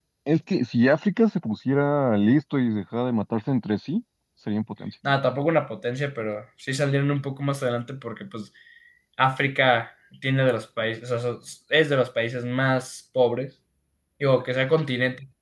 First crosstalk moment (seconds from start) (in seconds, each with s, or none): none